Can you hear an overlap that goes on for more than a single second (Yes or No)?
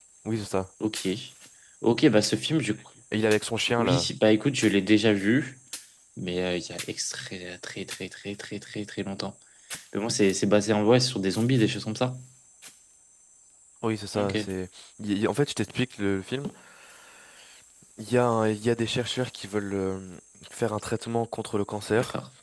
No